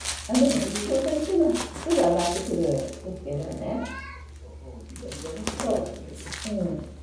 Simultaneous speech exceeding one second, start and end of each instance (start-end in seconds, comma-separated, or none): none